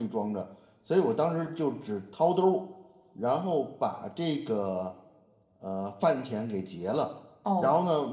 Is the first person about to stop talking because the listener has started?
No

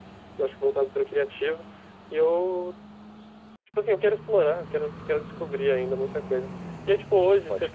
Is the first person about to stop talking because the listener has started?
No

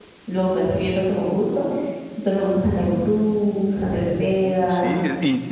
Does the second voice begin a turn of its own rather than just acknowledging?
Yes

